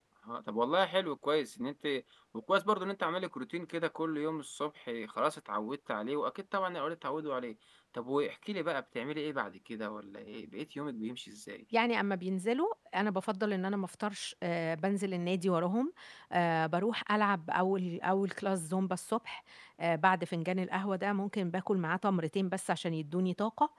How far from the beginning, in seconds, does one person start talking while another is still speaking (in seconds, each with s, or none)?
none